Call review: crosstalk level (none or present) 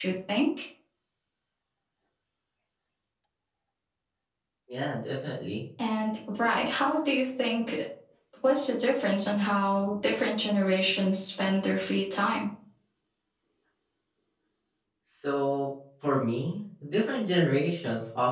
none